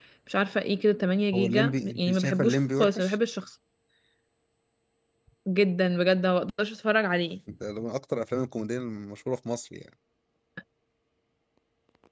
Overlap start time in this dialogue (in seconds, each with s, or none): 1.3 s